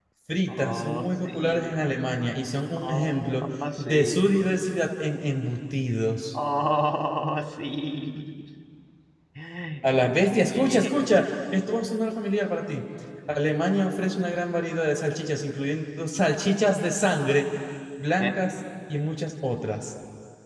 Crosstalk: present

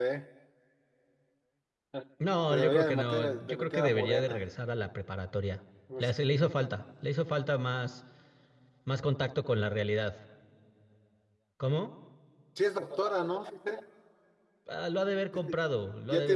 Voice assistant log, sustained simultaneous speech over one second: present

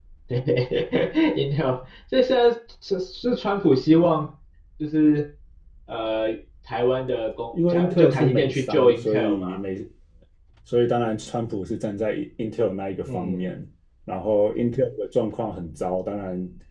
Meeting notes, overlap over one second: present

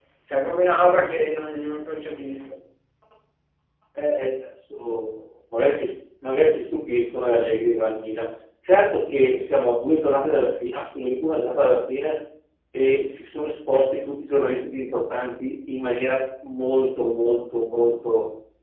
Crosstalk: none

